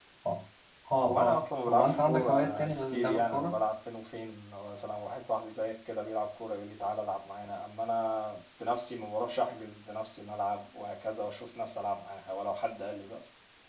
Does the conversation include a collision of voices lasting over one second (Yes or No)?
Yes